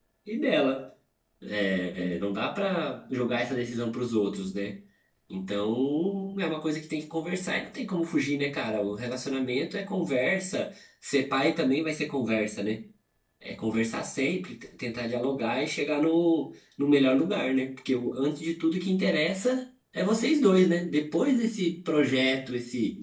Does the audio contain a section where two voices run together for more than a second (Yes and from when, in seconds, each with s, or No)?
No